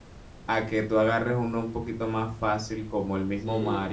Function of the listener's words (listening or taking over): taking over